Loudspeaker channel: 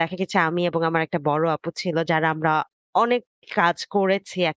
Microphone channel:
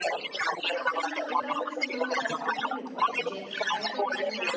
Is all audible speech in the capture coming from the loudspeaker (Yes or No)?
No